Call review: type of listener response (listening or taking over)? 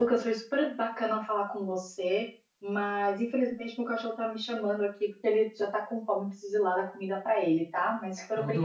taking over